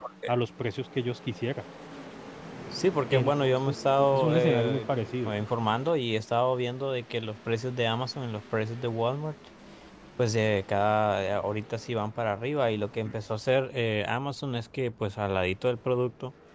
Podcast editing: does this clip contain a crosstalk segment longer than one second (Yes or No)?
Yes